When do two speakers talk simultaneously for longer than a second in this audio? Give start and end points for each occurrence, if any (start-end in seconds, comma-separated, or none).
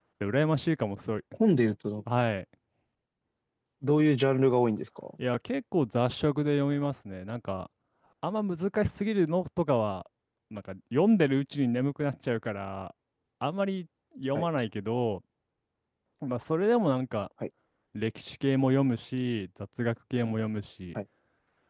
none